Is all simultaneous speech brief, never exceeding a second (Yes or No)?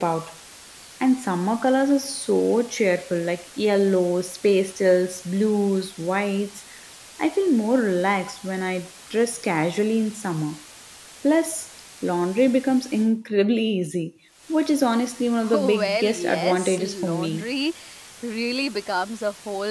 No